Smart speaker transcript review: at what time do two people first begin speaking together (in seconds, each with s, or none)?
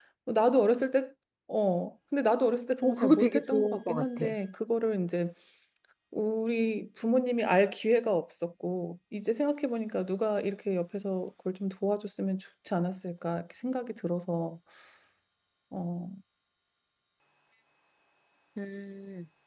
2.8 s